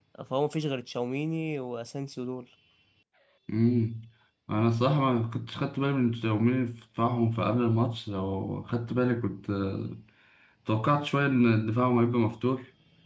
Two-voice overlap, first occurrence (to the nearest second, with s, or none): none